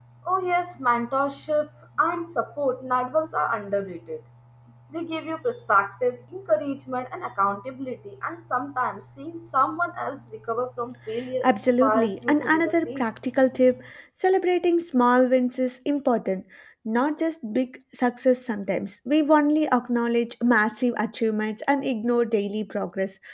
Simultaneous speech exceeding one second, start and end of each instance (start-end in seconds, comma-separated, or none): 11.4-13.0